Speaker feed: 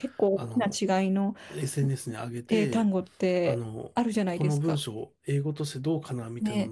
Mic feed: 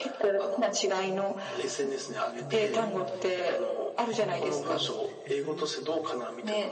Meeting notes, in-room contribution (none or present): present